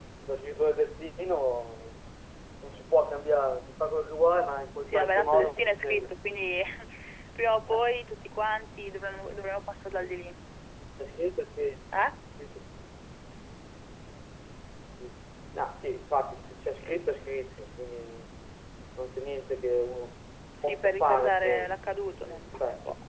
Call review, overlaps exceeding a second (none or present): present